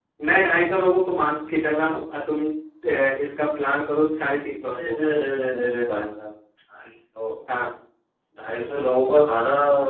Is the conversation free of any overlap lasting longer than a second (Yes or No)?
Yes